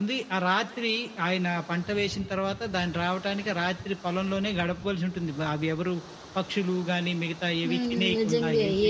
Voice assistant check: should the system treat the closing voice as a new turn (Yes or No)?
Yes